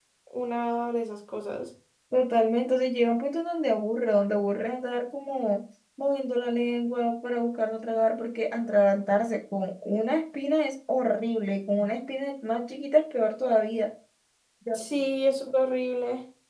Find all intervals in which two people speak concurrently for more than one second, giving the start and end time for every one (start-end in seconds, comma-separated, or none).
none